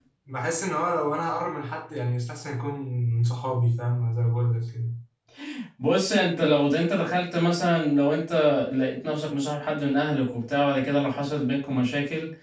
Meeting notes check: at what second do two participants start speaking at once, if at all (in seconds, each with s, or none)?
none